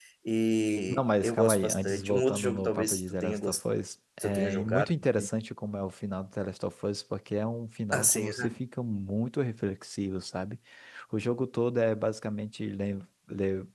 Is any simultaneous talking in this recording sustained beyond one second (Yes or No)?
Yes